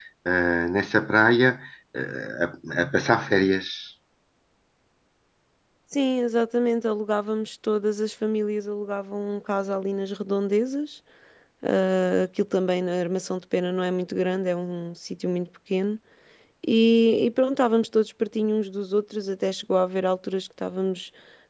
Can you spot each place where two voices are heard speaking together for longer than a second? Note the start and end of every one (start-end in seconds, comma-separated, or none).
none